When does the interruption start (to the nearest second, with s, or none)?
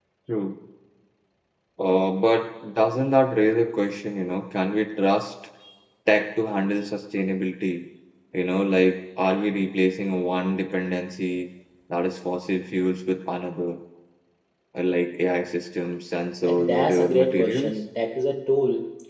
16 s